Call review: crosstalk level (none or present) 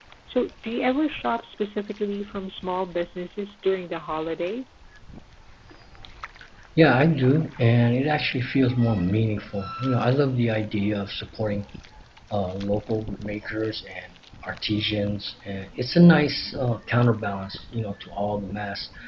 none